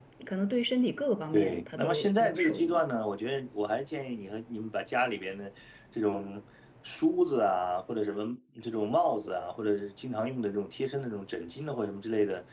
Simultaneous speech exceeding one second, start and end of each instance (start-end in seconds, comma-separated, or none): 1.3-2.8